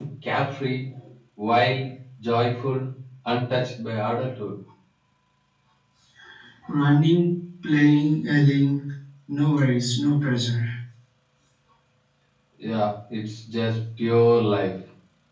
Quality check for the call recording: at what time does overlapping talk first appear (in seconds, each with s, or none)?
none